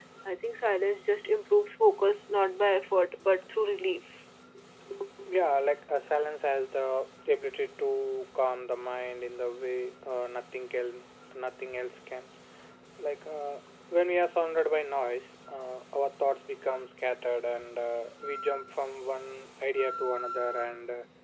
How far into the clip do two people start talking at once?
none

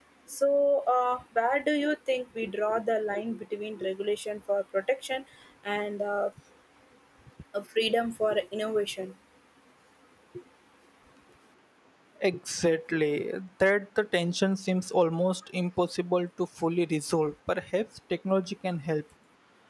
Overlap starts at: none

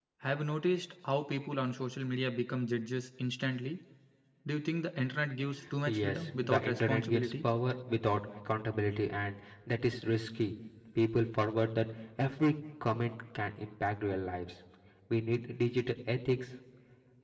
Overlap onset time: 5.9 s

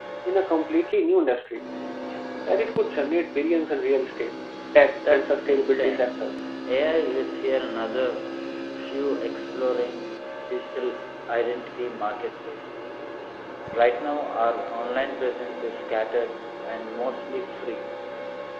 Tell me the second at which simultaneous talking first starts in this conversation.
5.0 s

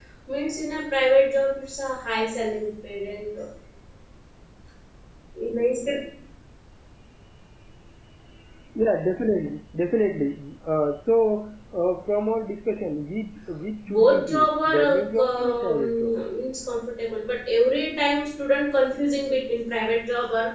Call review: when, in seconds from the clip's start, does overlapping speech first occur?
13.8 s

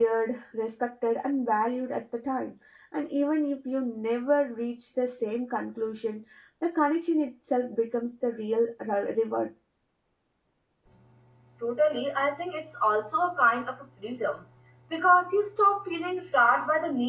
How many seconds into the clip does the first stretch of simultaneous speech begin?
none

